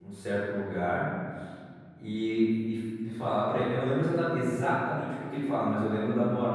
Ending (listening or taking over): listening